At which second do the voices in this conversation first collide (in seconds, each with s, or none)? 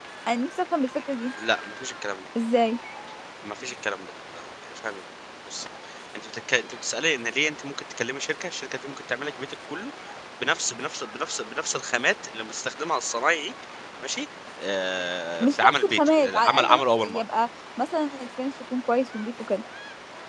15.4 s